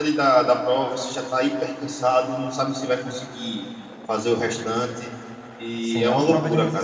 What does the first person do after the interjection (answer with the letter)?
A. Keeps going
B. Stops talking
B